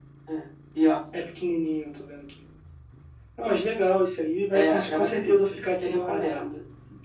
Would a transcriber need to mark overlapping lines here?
Yes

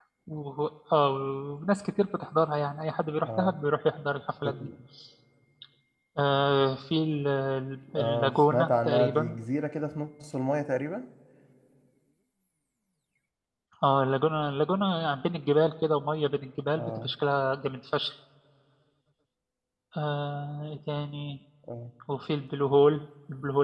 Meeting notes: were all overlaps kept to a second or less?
No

